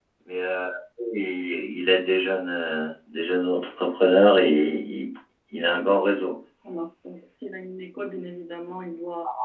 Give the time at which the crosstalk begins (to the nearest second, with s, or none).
none